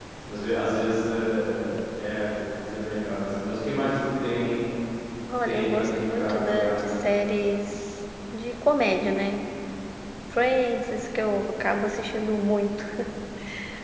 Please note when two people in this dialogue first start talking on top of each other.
5.5 s

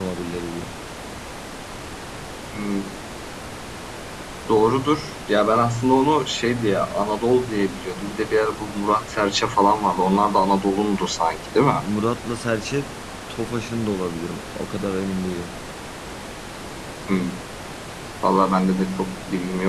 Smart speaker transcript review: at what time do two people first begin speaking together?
none

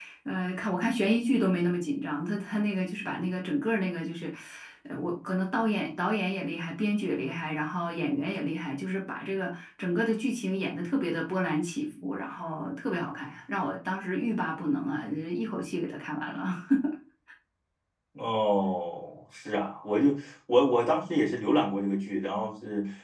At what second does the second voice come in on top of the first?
none

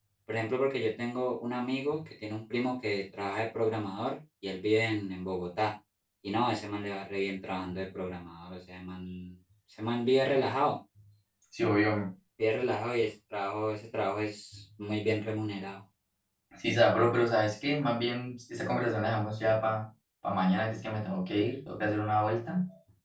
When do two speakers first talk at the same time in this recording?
none

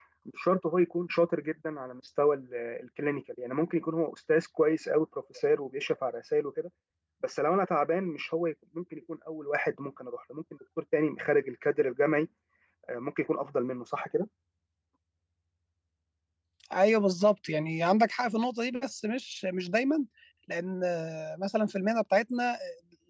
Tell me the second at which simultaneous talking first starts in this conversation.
none

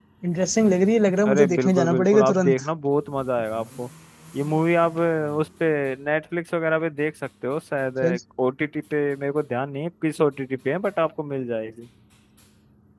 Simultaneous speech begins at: 1.3 s

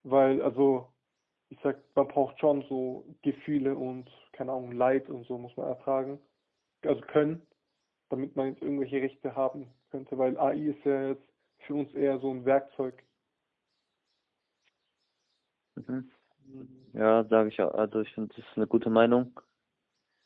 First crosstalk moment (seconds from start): none

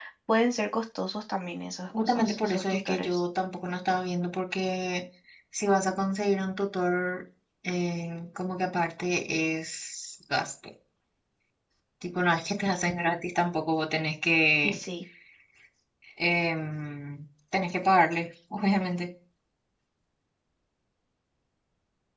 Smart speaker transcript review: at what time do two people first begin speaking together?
1.9 s

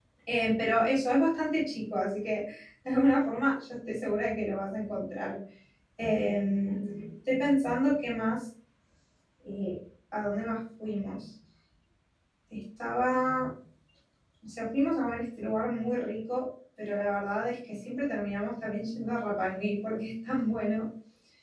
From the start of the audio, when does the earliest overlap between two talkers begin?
none

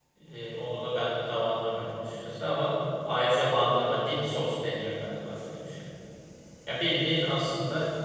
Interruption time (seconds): none

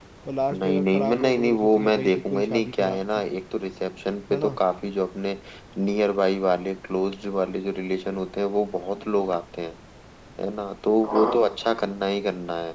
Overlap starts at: 0.5 s

